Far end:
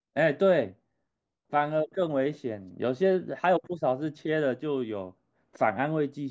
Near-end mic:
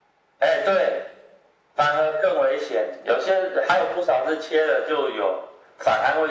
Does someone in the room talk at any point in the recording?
No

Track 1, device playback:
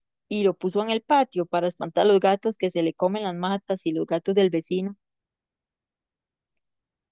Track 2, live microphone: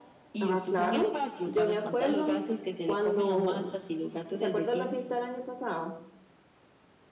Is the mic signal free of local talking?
No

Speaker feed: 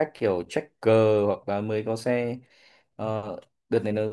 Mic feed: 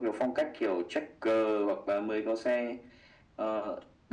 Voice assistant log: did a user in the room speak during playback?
No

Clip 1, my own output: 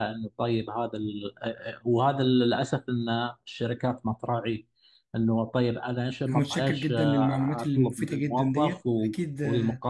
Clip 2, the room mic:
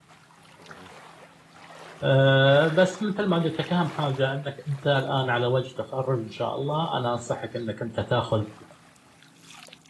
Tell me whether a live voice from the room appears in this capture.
Yes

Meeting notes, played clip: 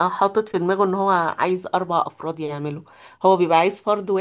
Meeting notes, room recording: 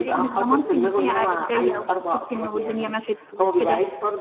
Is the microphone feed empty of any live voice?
No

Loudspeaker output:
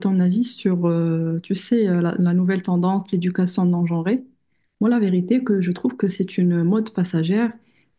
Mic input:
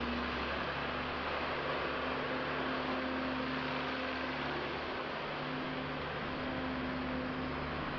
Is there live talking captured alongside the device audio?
No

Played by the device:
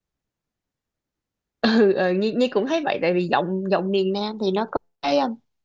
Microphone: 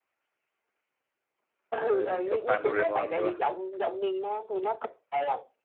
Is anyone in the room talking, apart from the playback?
Yes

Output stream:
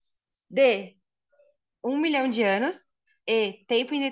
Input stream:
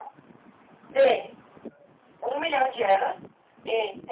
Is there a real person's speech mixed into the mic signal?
No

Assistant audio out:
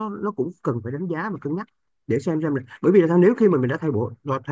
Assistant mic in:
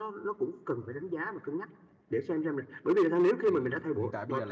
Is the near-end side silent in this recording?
No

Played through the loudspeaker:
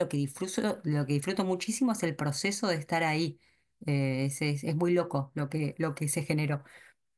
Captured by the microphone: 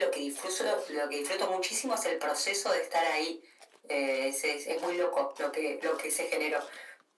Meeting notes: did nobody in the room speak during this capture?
Yes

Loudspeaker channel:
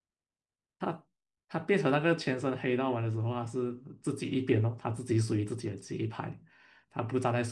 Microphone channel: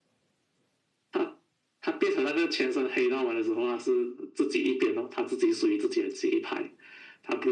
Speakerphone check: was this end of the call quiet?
Yes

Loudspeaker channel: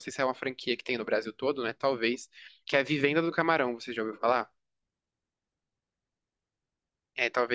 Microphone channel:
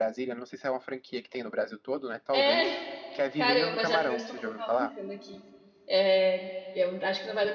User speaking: Yes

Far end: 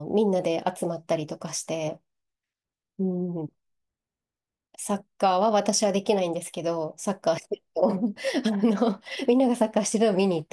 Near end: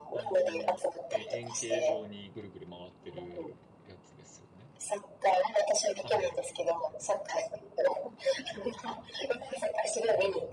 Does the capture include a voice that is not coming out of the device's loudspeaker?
Yes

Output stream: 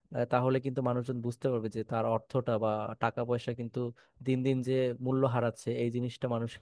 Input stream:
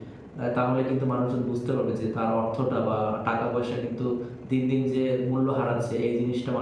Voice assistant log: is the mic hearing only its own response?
Yes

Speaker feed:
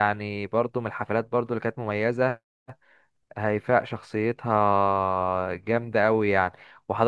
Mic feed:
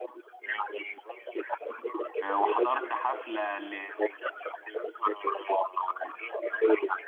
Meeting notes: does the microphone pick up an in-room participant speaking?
Yes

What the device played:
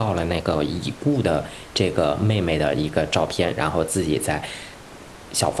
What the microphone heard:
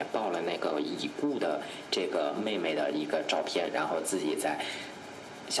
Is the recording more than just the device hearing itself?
No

